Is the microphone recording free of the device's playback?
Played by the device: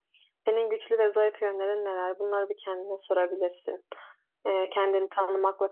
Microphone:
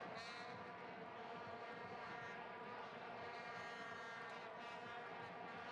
Yes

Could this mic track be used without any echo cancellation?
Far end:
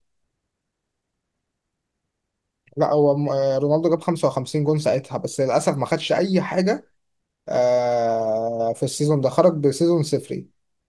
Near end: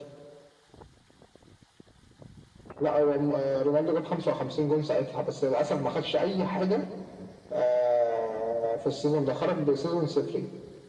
No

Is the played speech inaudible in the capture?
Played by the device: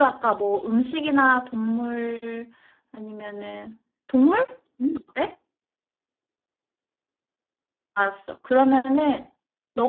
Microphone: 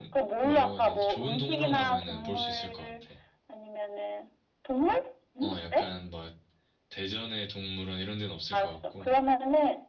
No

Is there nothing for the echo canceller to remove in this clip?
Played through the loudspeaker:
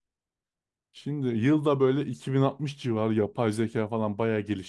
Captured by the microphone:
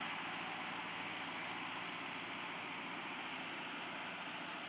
Yes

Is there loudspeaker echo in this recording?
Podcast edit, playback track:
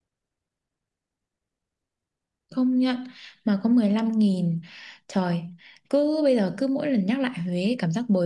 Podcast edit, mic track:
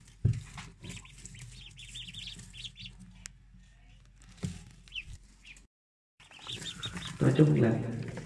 No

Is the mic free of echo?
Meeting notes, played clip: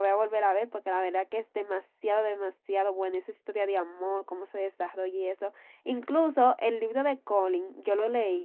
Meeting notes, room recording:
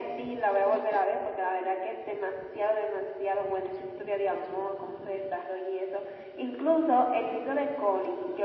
No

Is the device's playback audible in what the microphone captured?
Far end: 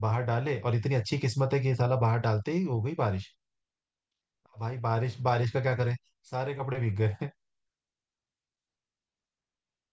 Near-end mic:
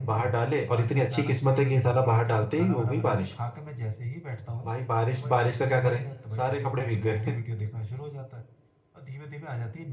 Yes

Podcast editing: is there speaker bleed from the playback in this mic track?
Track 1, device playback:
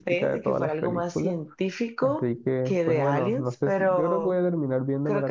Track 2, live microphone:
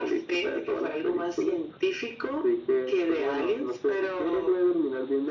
Yes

